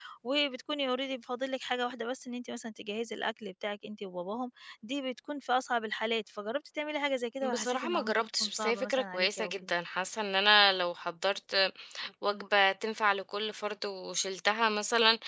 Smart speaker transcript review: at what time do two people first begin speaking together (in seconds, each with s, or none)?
7.4 s